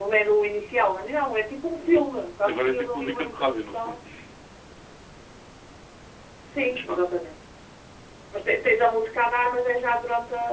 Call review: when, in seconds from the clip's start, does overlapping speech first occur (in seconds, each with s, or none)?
2.5 s